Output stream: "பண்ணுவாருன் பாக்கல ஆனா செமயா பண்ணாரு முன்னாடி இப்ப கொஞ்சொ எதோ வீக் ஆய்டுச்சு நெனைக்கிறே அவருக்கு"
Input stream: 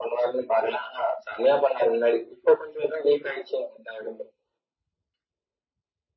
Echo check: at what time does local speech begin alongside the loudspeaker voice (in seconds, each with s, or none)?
none